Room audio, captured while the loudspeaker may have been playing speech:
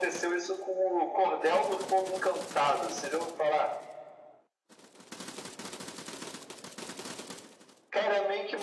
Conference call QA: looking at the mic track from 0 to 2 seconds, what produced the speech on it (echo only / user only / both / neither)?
echo only